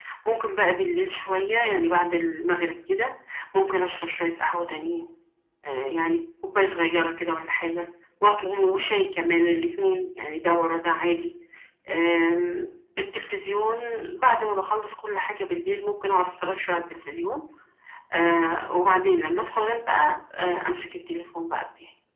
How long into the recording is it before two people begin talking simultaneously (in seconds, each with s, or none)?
none